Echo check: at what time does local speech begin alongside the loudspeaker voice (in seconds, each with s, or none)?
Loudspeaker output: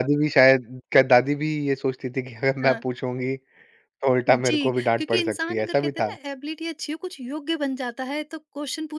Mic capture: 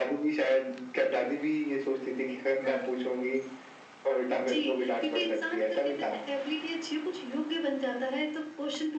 none